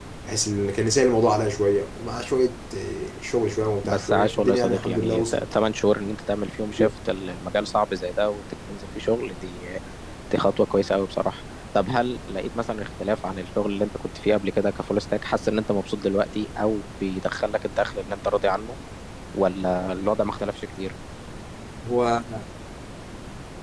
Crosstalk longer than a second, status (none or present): present